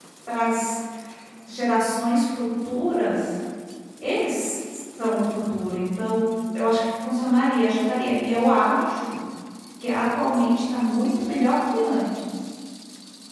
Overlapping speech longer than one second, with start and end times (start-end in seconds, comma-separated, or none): none